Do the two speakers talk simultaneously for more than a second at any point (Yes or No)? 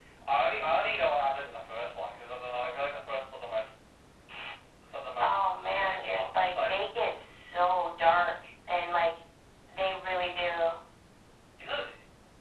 Yes